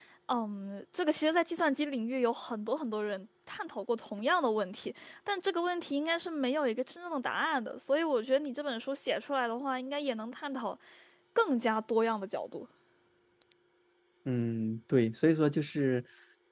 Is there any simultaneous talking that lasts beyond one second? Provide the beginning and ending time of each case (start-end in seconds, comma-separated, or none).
none